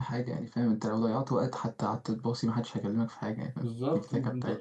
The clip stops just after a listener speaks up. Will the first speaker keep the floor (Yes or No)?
No